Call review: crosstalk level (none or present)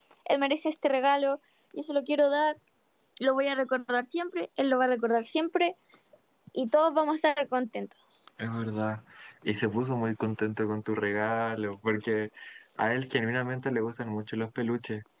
none